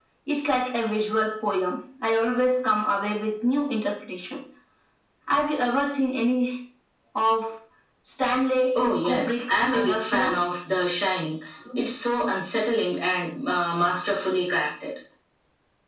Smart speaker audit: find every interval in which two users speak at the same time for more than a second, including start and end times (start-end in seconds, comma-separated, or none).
9.0-10.3